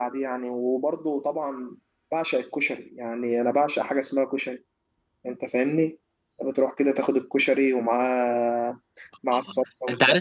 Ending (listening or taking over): taking over